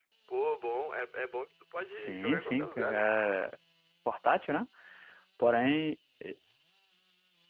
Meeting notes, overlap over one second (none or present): present